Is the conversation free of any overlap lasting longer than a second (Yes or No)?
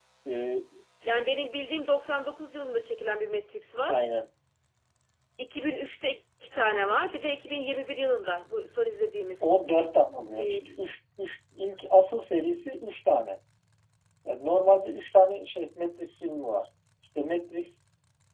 Yes